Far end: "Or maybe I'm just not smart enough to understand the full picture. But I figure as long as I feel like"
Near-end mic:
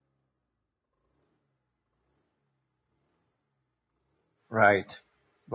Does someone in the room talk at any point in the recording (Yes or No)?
Yes